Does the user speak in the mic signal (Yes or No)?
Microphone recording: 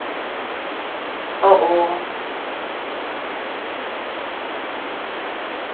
Yes